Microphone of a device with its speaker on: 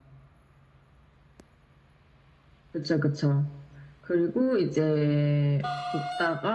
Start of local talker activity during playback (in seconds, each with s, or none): none